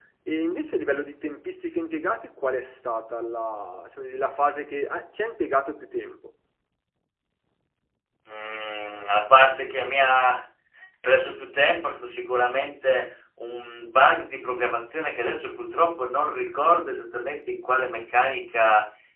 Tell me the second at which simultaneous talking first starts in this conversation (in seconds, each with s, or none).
none